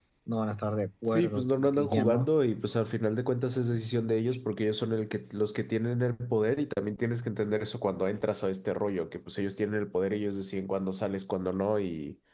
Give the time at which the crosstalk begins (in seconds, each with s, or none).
1.1 s